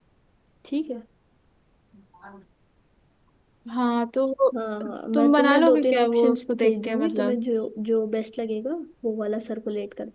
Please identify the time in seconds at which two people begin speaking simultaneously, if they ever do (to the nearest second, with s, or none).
5 s